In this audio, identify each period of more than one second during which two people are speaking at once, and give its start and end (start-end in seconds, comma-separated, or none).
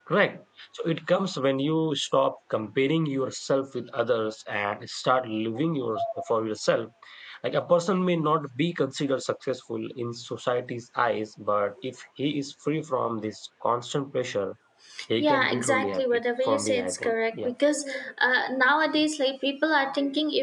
15.2-17.5